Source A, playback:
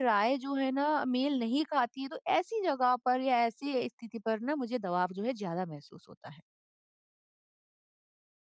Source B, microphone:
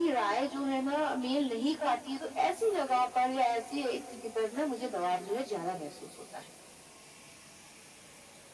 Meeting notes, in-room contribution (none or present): none